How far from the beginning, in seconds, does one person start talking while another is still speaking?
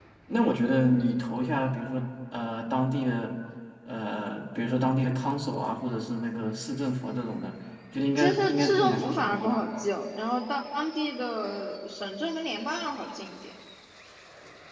8 s

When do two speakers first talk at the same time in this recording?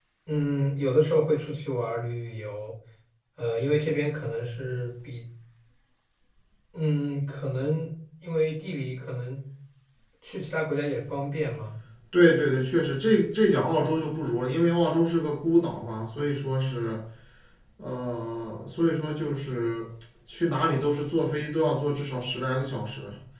none

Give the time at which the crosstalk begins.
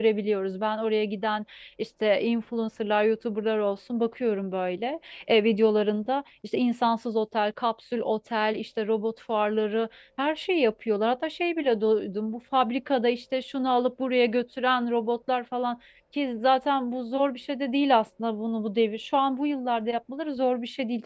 none

